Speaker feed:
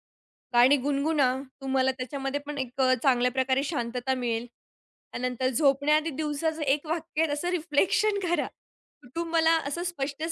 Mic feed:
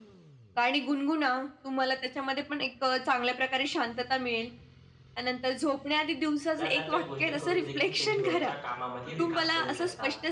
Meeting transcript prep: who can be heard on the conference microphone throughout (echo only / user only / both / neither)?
both